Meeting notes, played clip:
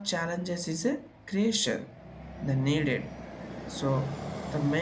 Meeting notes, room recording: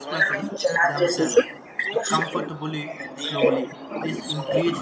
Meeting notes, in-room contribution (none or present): present